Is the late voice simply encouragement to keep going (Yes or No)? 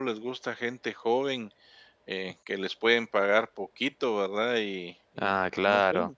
No